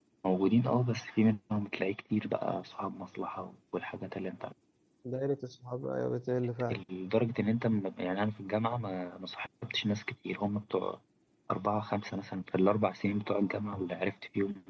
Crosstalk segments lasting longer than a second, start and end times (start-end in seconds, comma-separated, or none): none